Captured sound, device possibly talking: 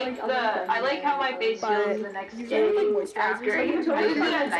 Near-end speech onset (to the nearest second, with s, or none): 2 s